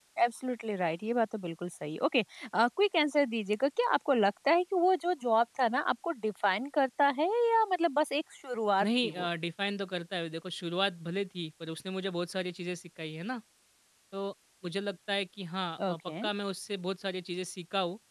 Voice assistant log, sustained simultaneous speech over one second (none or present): none